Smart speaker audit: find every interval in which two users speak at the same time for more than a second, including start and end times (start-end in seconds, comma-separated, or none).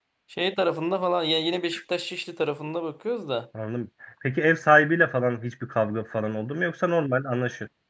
none